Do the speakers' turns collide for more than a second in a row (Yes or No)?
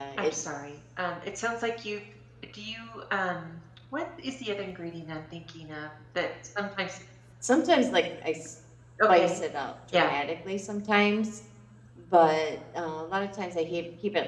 No